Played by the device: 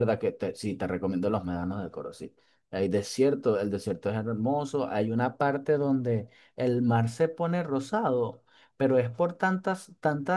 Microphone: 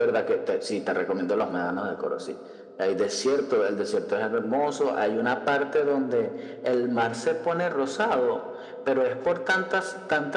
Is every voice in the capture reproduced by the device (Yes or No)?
Yes